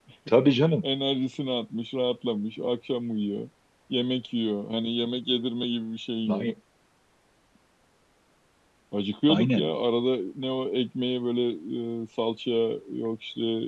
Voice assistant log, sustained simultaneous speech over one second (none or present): none